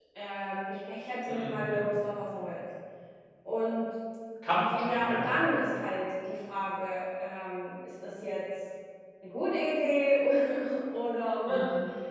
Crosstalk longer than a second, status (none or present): none